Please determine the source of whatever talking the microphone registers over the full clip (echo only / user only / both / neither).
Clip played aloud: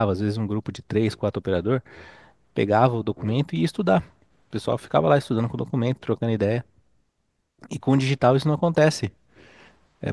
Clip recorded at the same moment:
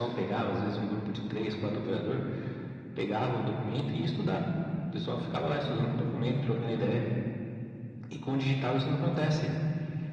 echo only